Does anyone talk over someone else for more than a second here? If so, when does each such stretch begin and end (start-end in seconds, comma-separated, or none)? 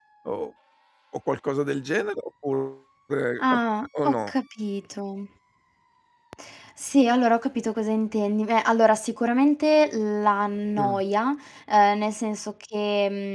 none